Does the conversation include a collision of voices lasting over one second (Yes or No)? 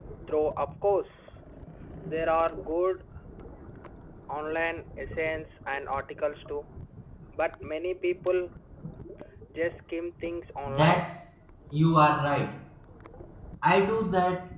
No